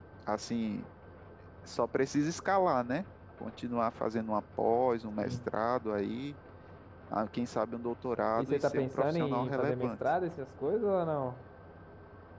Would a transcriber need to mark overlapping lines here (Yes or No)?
Yes